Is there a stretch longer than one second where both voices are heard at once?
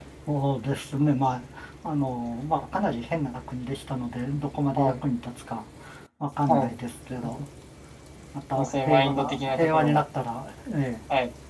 Yes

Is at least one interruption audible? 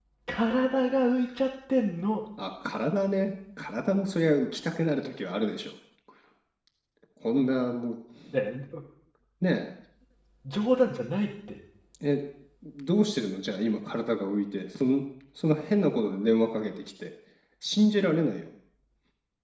No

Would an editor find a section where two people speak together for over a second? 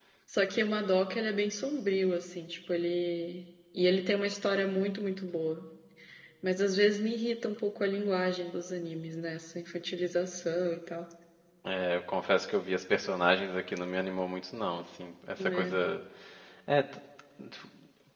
No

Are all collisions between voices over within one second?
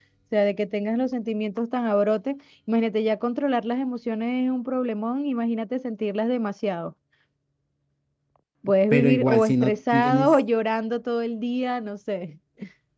No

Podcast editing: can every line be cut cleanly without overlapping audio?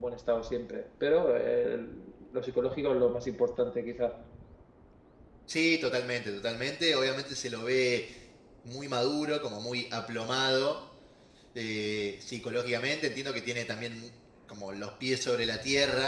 Yes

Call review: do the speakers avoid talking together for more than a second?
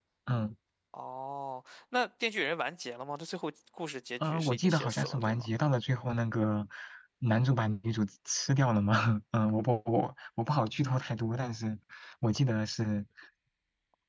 No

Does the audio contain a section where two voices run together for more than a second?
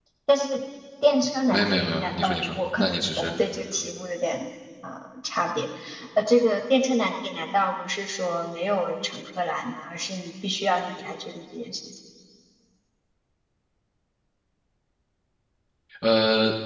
Yes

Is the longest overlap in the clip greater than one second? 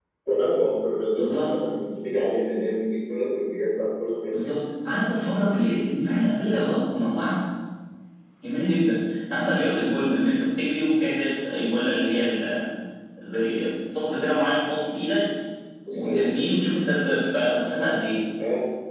No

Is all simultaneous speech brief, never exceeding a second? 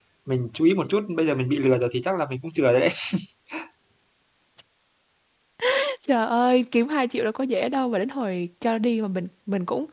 Yes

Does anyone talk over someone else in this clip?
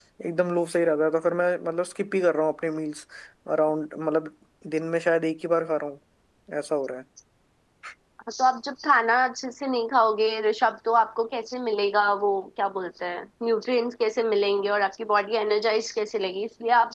No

